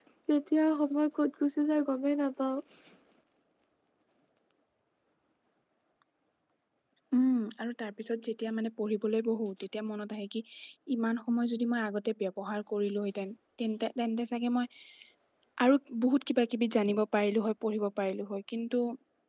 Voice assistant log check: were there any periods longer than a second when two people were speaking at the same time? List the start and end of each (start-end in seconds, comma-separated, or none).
none